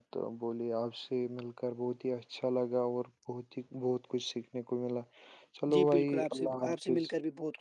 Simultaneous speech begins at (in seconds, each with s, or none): 5.7 s